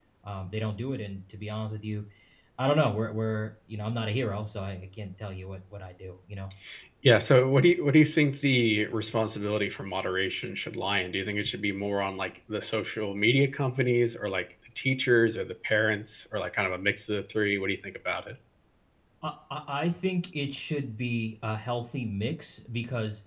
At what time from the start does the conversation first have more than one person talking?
none

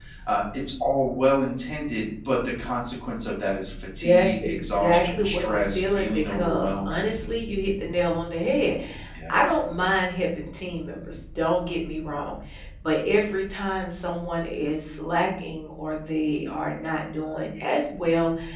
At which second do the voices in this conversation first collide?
4 s

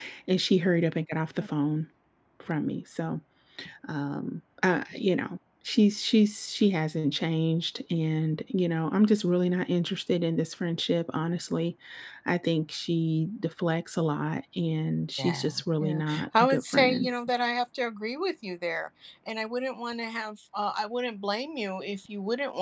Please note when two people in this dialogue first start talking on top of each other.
15 s

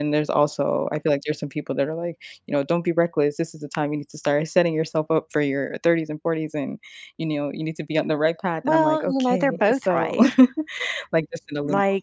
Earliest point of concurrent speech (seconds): 9 s

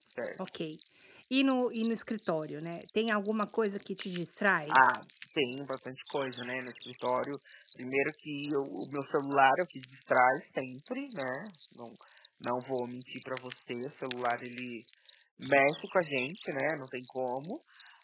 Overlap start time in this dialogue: none

